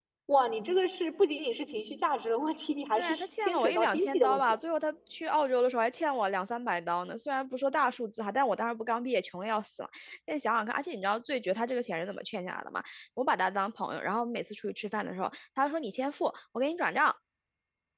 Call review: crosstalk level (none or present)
present